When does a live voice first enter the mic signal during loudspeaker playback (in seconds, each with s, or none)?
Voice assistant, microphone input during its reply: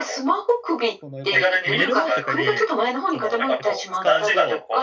1.0 s